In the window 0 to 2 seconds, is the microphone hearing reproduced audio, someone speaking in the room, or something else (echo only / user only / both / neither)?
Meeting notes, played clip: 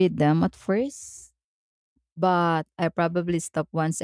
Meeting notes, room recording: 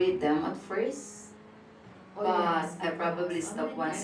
echo only